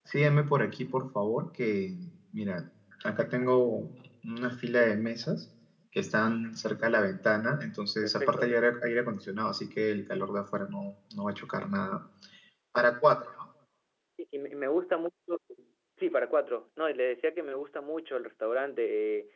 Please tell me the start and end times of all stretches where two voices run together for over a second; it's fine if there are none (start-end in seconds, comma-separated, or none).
none